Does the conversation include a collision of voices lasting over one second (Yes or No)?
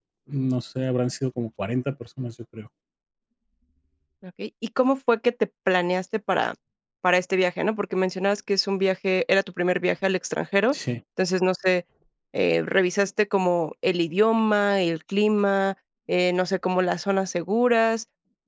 No